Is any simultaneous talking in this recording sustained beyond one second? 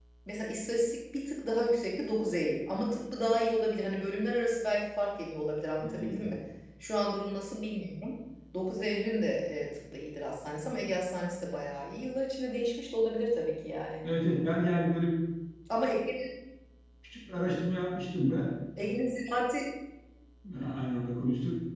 No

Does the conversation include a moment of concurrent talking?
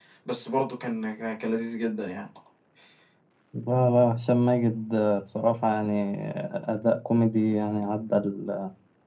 No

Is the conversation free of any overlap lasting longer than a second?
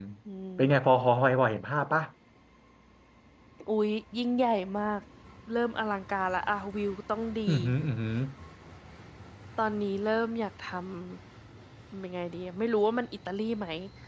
Yes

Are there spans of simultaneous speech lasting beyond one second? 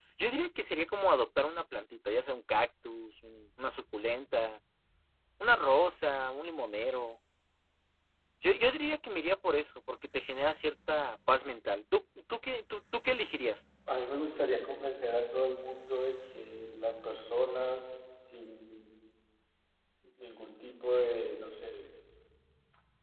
No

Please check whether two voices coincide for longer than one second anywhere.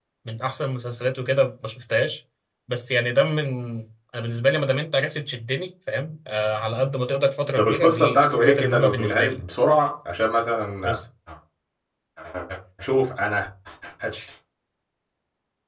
Yes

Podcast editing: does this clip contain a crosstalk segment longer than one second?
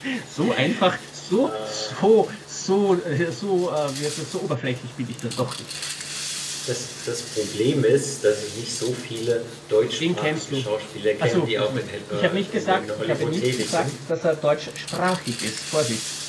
Yes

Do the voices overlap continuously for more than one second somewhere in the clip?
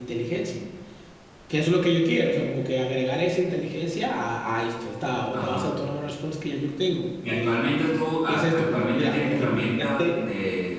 Yes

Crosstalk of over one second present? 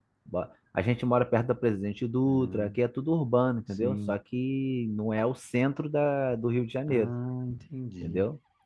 No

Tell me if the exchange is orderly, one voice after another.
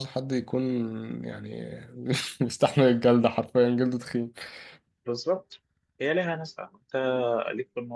Yes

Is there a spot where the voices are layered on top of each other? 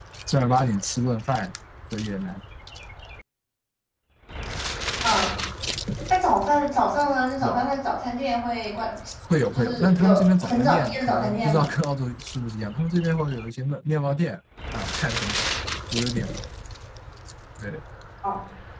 Yes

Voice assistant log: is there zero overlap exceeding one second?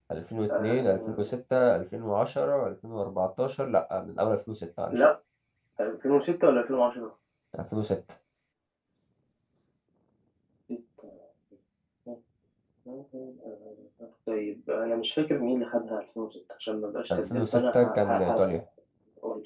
No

